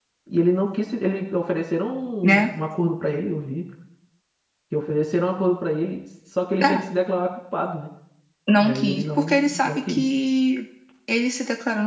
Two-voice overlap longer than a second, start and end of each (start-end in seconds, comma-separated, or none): 8.6-10.0